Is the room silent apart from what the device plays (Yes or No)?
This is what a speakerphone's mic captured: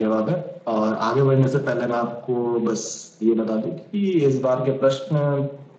Yes